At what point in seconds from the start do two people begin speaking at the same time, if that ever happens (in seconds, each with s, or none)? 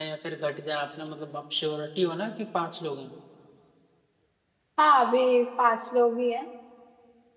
none